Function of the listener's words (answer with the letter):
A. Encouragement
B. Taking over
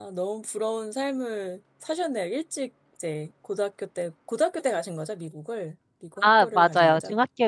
B